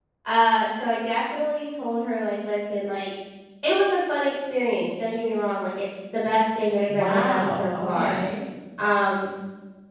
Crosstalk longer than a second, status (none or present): present